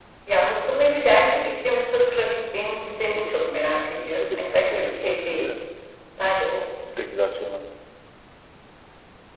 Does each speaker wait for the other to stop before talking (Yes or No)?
No